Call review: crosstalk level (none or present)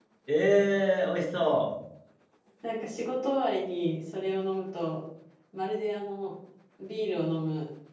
none